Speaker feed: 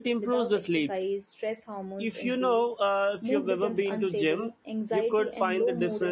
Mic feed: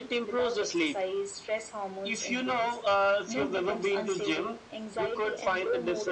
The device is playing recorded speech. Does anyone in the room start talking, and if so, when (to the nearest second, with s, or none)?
none